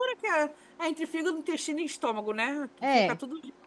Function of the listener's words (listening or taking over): taking over